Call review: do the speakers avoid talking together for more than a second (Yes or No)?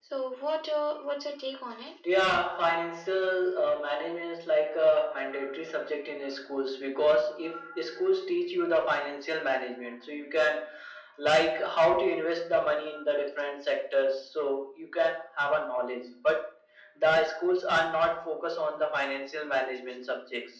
Yes